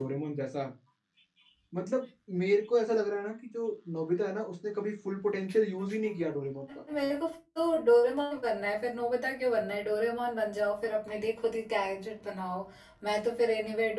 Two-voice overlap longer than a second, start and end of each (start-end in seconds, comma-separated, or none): none